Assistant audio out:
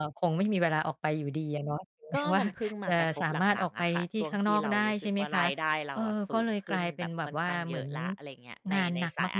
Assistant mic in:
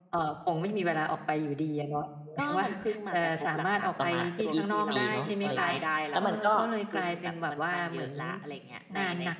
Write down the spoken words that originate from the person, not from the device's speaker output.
ประมาณเกือบ 20 เนาะ อะไรอย่างเงี้ย แล้วมันก็

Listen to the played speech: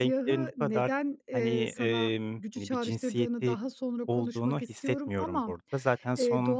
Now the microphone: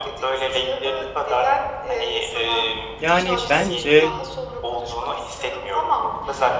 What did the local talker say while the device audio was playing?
Yani, bence,

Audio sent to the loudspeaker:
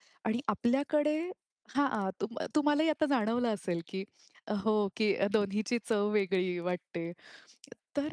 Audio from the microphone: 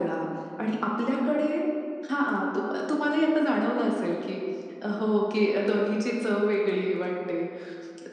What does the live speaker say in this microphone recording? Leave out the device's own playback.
none

